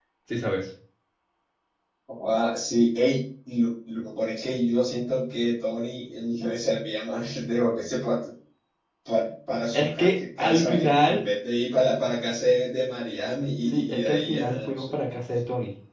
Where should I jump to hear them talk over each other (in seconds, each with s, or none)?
9.7 s